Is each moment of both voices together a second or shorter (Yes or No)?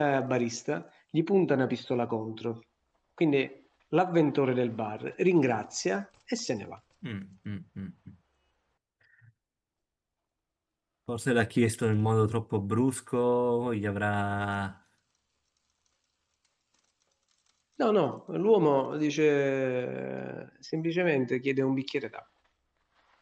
Yes